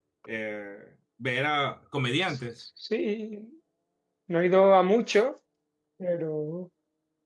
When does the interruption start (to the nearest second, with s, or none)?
none